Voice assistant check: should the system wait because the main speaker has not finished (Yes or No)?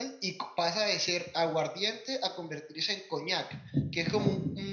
Yes